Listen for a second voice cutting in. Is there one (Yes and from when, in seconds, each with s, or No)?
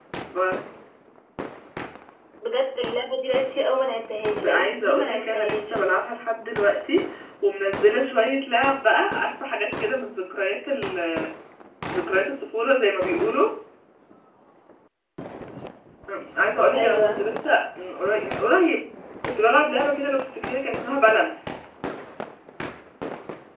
Yes, from 4.4 s